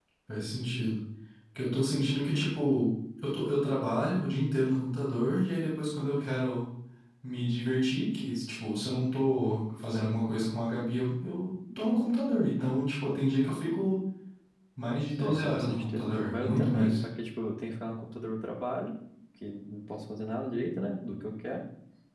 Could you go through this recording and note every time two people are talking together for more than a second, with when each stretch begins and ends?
15.2-17.0

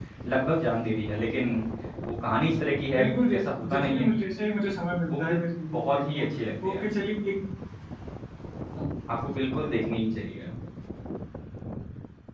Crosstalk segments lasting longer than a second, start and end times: none

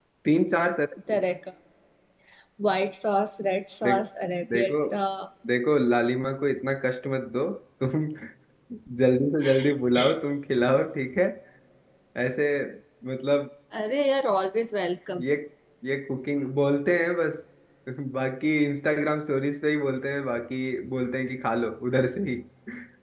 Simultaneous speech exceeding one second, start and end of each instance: none

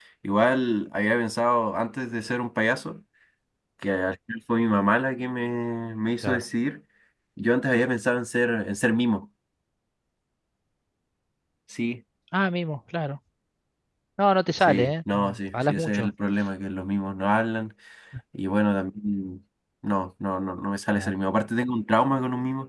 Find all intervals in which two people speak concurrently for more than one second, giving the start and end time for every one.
14.6-16.1

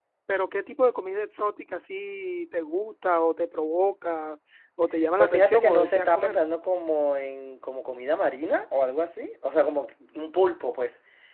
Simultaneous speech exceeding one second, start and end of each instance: 5.2-6.4

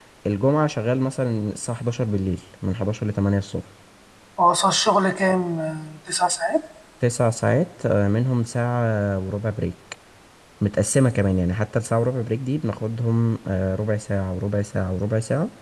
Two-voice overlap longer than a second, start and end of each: none

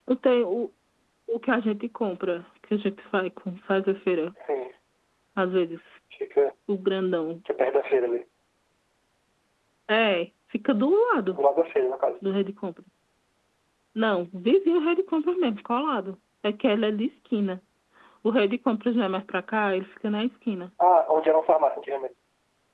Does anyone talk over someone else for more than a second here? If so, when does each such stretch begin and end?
none

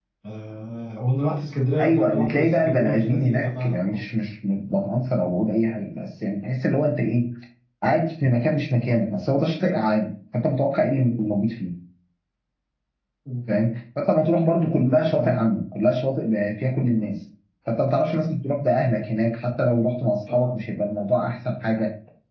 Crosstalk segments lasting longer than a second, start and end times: 1.8-4.0

